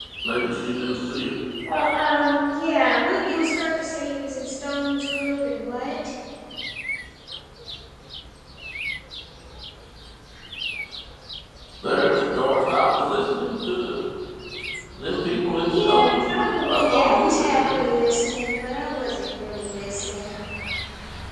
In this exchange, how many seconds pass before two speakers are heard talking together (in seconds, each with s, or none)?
15.7 s